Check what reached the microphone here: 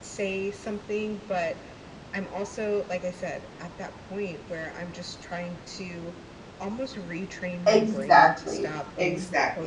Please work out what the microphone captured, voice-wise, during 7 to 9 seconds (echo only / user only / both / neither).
both